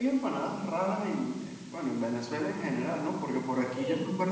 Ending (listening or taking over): listening